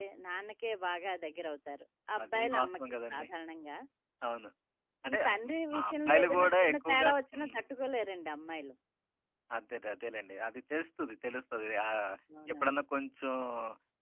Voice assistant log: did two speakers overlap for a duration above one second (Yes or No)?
Yes